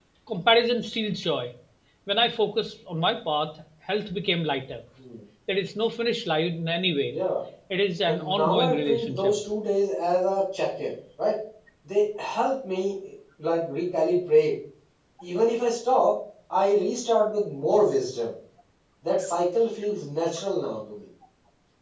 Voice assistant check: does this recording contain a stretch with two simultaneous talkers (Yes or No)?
Yes